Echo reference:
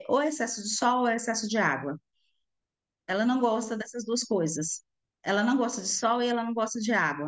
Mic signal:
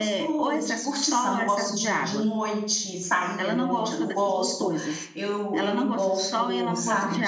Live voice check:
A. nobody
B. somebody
B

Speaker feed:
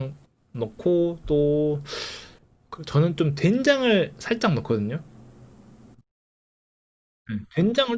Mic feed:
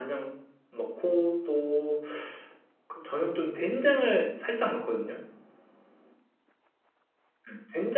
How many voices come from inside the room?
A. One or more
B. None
B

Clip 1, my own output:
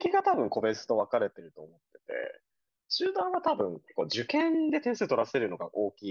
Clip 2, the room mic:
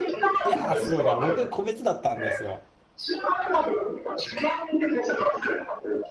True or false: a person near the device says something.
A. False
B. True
B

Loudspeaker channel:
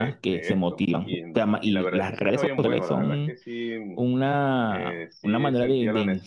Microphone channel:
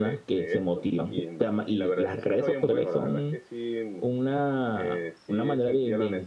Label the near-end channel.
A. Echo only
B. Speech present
A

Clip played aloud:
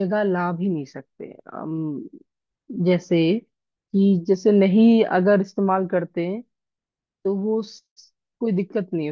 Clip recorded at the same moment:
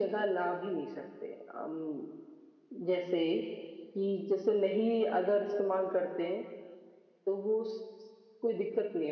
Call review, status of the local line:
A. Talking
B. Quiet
B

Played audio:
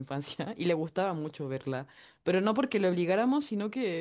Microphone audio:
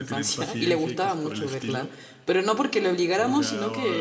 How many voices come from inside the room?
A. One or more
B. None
A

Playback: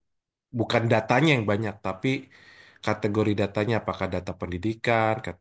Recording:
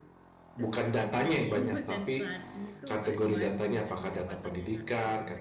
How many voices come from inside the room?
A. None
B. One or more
B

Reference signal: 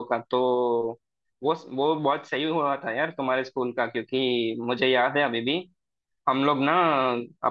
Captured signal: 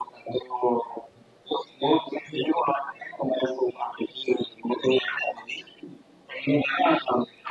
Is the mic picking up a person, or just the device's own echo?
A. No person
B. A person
A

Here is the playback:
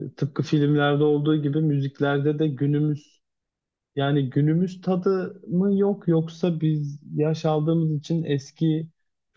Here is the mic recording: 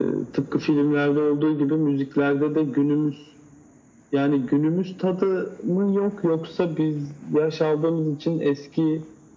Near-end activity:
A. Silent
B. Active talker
A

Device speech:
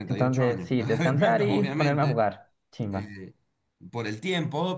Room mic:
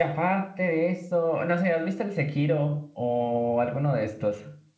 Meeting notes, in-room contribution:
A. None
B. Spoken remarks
B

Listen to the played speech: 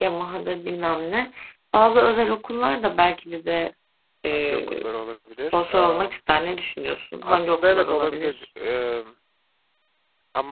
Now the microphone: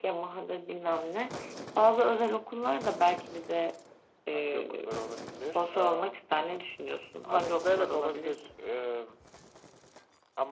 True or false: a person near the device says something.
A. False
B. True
A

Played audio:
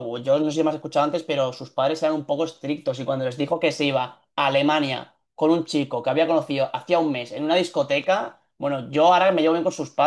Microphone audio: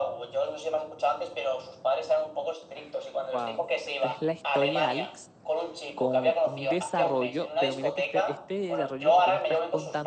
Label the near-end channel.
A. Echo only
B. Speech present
B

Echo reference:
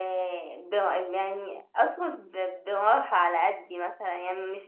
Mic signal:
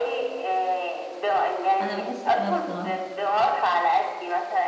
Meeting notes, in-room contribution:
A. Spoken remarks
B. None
A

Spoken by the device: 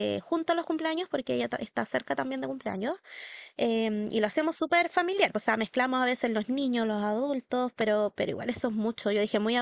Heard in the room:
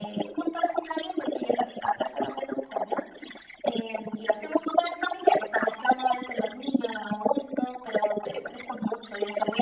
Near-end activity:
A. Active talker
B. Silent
B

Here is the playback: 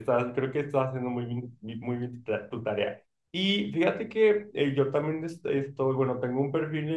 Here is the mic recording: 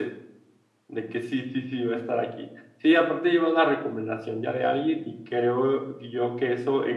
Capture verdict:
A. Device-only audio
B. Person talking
B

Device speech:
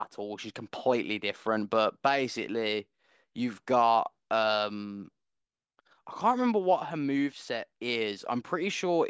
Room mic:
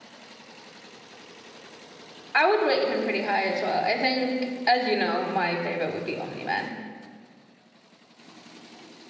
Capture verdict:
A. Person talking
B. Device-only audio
A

